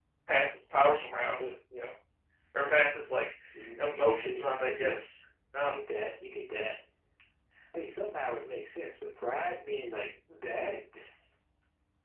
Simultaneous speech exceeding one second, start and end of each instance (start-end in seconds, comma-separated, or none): 3.8-5.0